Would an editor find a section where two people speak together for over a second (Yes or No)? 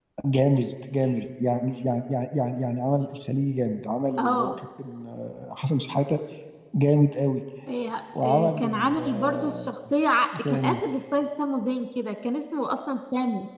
Yes